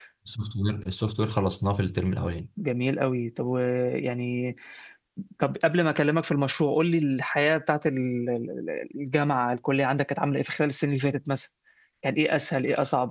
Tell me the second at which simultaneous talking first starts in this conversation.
none

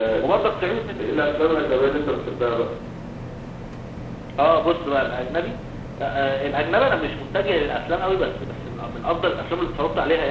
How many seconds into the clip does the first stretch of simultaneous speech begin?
none

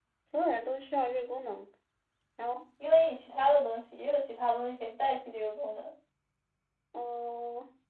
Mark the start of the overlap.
none

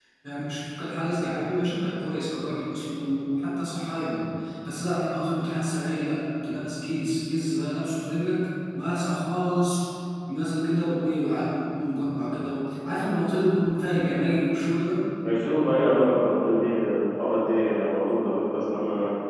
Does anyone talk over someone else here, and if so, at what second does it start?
none

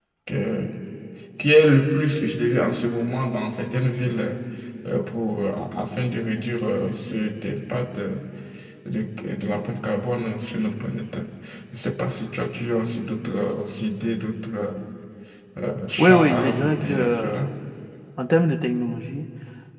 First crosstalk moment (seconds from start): 16.0 s

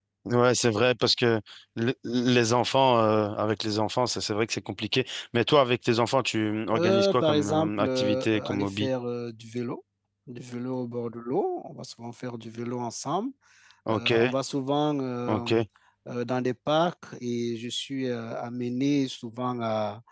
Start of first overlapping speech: 6.7 s

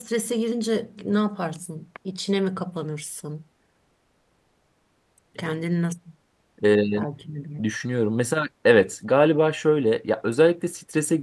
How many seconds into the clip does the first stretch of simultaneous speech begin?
none

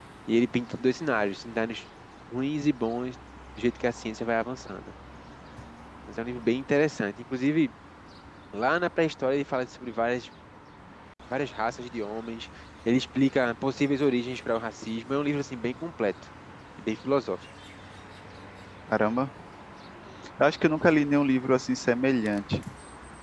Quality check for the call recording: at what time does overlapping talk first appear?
none

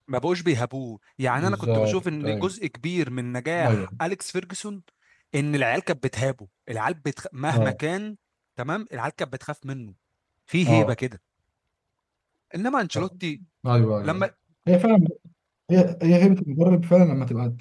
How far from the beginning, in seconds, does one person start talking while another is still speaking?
1.3 s

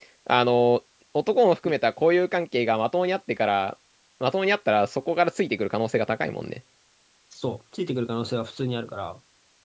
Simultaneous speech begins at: none

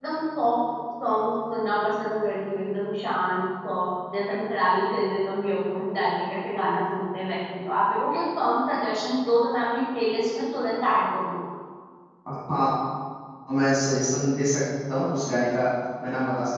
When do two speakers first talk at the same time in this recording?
none

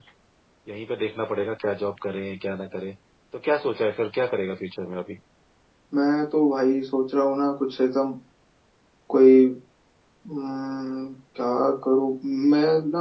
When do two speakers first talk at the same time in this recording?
none

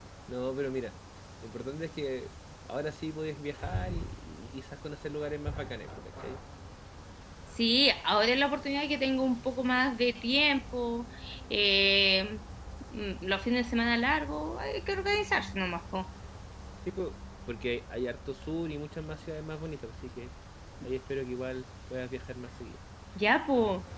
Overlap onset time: none

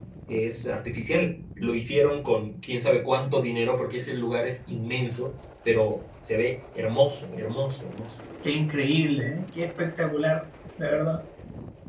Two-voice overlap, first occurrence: none

